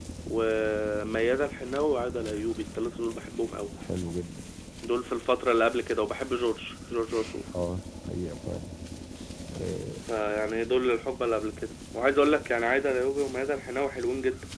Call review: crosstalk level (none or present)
none